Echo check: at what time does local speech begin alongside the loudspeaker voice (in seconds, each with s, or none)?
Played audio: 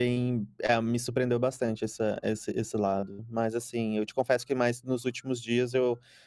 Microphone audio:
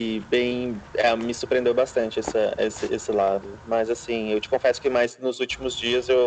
none